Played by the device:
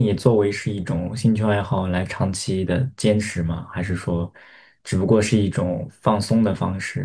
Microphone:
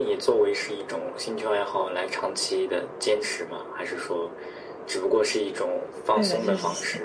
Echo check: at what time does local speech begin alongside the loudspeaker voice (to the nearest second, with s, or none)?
6 s